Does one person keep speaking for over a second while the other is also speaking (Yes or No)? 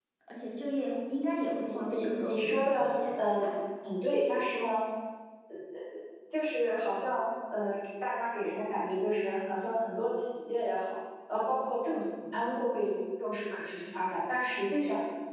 Yes